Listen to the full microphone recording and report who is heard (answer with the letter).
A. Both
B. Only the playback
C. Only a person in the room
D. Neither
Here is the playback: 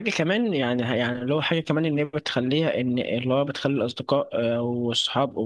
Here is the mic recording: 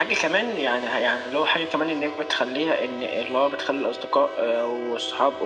B